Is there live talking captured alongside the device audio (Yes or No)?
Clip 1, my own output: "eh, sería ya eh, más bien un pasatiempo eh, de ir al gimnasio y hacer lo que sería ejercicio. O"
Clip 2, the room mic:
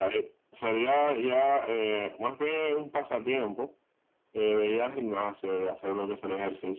No